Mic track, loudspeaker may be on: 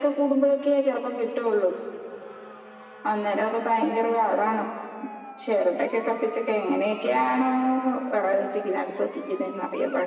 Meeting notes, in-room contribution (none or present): none